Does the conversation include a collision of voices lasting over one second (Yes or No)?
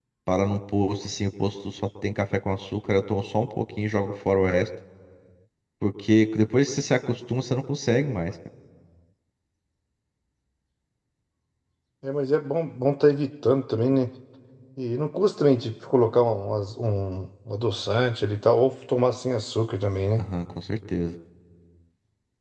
No